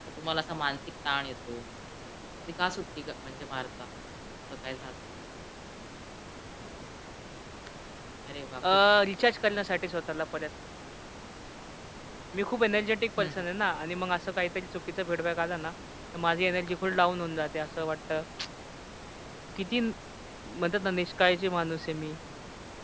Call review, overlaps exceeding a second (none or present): none